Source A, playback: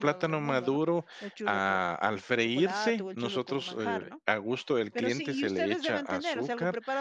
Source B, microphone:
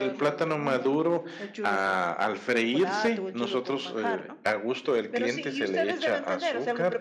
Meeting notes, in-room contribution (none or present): none